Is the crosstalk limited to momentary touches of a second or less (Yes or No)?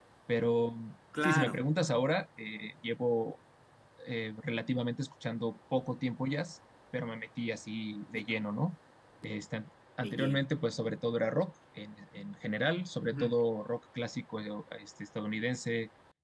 Yes